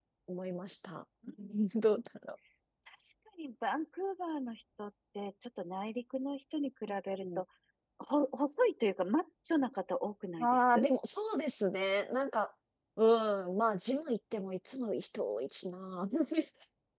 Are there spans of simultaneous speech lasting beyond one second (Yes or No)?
No